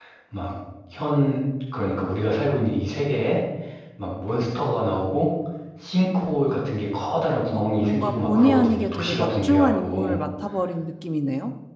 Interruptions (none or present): present